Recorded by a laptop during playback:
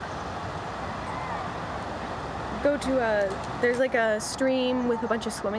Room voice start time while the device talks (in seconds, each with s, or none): 2.6 s